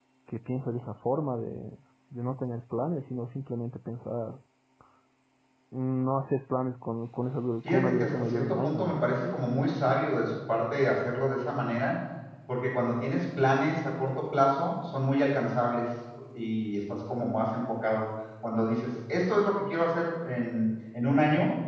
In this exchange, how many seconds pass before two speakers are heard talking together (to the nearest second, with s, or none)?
8 s